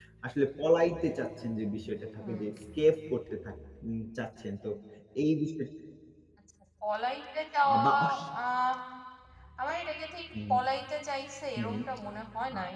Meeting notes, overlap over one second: none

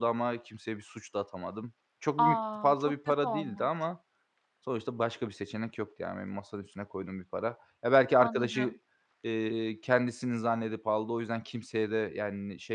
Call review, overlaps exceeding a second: present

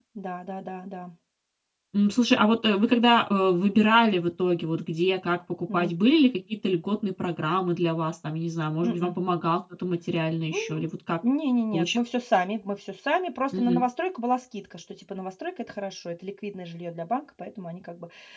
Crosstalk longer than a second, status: none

